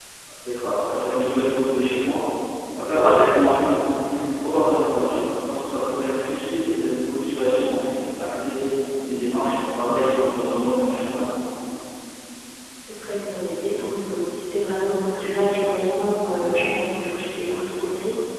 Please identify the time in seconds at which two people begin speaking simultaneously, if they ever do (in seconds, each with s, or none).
none